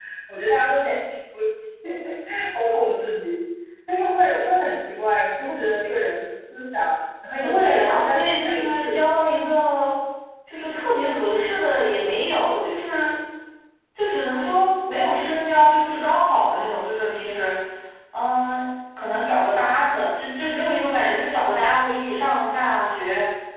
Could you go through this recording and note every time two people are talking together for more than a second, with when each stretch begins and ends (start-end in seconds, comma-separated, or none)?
7.4-9.0